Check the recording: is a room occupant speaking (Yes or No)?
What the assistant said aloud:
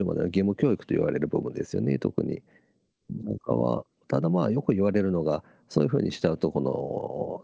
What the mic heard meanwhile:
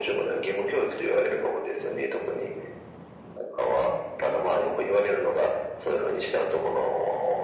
No